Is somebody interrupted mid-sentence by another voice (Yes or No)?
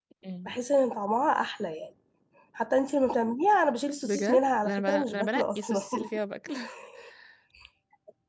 Yes